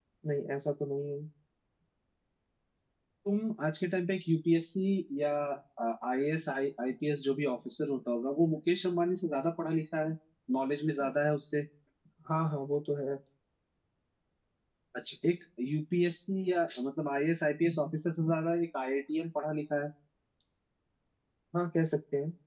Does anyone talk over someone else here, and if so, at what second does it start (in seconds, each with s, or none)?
none